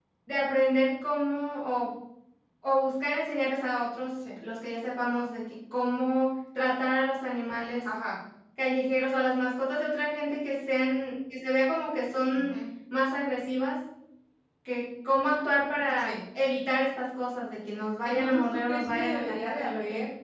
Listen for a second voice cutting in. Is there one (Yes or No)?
Yes